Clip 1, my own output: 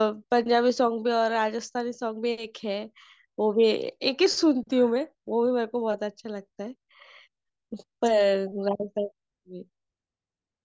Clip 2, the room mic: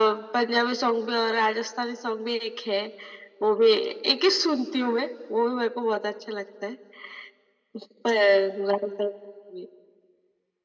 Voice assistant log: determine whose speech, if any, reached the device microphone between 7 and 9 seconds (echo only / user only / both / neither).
echo only